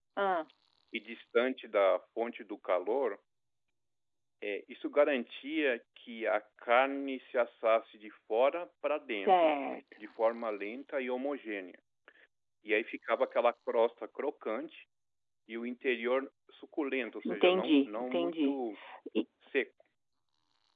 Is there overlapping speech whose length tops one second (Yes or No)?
Yes